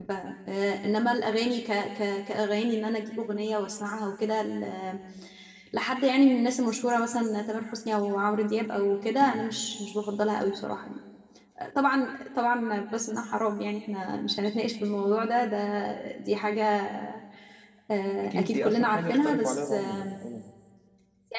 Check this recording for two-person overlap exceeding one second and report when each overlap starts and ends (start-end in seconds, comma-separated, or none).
18.2-20.1